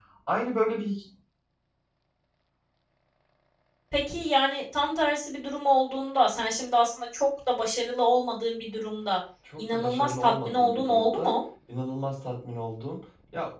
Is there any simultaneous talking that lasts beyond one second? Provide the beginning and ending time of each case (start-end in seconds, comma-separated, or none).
9.6-11.3